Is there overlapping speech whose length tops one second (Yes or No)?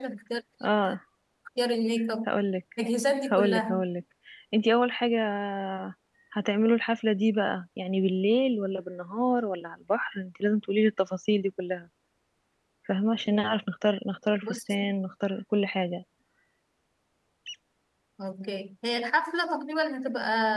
No